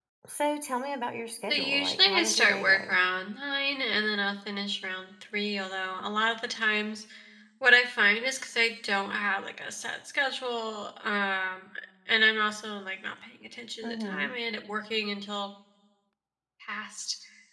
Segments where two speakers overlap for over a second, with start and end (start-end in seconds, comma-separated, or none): 1.5-3.0